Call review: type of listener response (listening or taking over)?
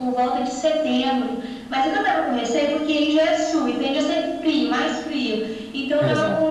listening